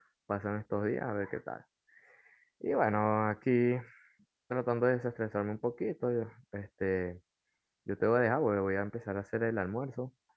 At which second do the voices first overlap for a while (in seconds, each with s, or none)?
none